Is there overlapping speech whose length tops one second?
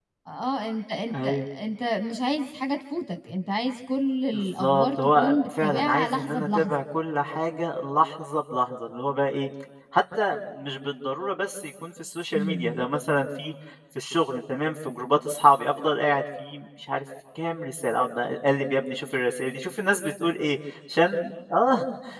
Yes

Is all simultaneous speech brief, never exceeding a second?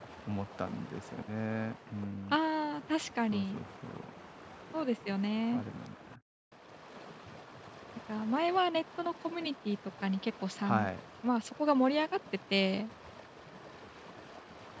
Yes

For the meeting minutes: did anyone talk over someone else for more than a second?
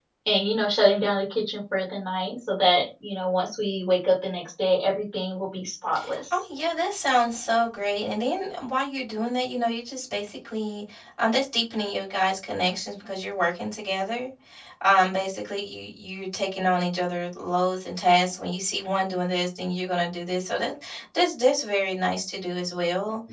No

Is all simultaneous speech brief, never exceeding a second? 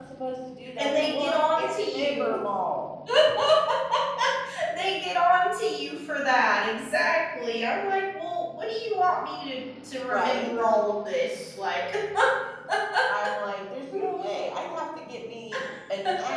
No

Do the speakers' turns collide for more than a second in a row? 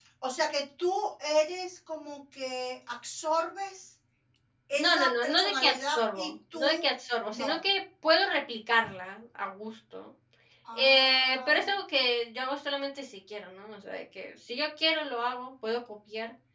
Yes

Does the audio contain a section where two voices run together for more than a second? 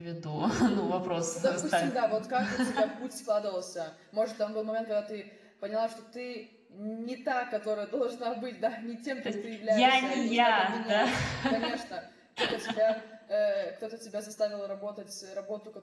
Yes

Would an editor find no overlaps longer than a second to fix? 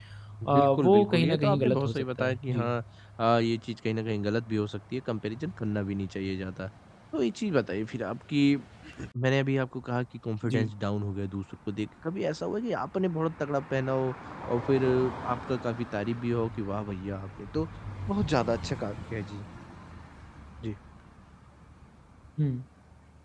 No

